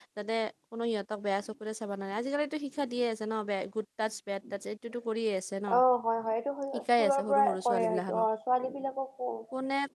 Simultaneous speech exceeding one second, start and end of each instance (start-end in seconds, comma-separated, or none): 6.7-8.2